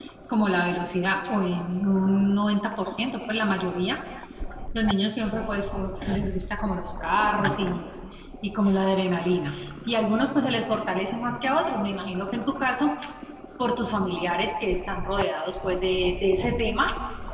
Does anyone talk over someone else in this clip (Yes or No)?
No